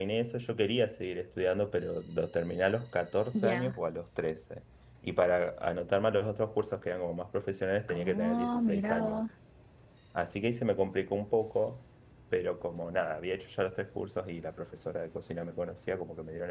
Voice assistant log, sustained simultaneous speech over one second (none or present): present